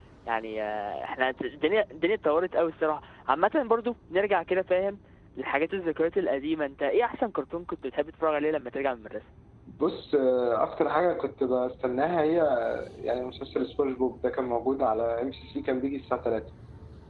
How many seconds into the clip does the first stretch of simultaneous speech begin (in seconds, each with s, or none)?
none